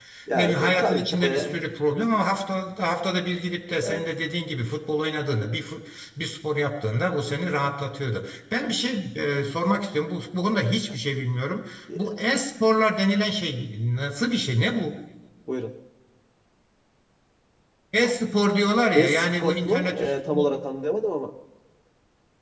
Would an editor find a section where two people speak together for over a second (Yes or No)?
Yes